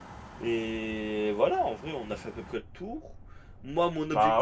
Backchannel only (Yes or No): Yes